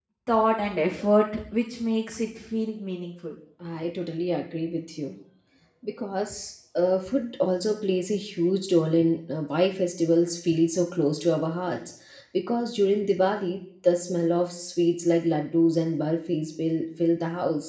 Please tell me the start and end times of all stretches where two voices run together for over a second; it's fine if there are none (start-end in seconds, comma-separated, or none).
none